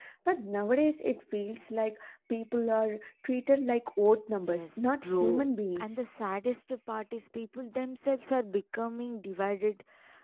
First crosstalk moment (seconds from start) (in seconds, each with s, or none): 4.5 s